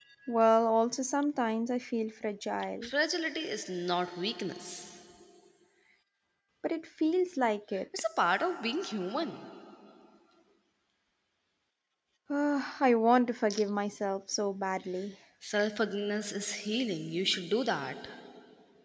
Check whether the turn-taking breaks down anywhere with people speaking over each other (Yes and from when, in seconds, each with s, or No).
No